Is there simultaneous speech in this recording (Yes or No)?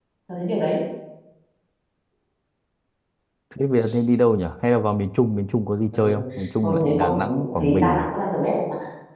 Yes